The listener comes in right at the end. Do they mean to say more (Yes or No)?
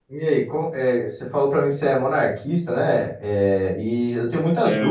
No